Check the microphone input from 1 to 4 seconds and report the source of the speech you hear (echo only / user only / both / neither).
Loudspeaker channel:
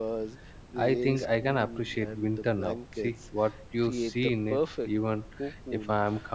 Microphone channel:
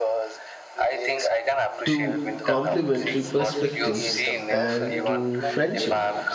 both